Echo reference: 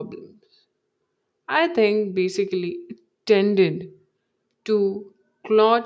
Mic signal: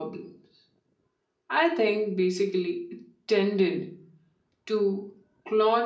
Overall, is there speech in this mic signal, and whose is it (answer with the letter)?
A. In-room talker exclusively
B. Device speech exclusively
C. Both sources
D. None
B